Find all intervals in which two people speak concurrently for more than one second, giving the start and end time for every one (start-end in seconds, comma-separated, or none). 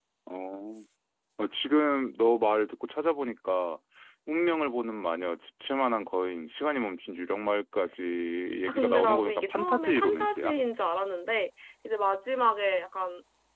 8.7-10.6